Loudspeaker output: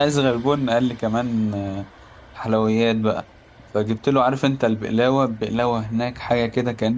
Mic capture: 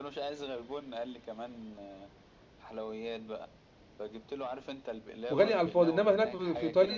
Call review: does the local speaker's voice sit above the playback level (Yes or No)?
Yes